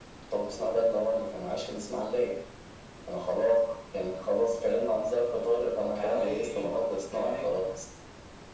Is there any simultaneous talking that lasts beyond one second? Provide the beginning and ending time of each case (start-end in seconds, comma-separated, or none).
6.0-7.7